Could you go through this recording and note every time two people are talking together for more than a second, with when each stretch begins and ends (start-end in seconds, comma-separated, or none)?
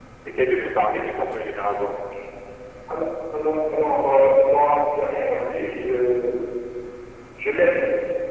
none